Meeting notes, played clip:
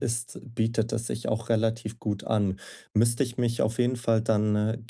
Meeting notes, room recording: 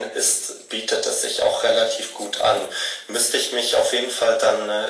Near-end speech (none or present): none